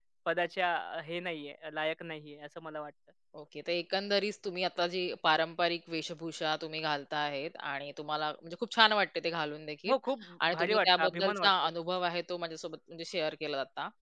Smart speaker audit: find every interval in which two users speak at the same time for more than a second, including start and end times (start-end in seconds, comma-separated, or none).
10.5-11.7